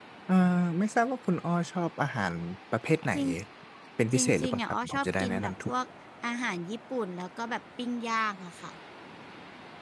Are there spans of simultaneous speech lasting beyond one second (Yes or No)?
Yes